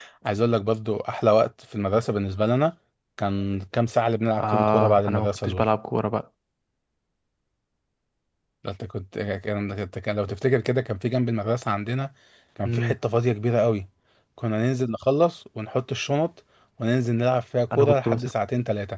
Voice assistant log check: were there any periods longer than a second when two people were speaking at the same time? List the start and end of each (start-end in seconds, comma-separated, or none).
4.4-5.7